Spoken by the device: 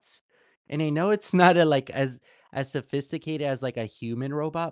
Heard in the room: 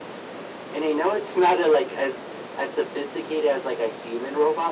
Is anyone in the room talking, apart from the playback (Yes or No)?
No